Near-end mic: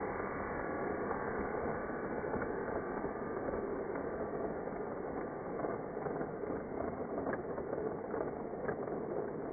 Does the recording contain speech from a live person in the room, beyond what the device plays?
No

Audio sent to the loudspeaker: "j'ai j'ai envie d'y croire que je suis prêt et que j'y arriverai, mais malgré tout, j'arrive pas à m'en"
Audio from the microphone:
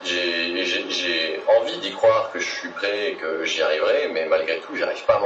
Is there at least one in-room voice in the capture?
No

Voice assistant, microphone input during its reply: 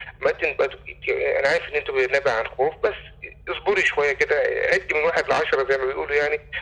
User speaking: No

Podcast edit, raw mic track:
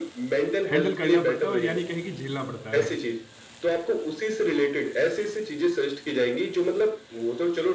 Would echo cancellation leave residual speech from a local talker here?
Yes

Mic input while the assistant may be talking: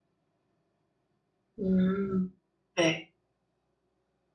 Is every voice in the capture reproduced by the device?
No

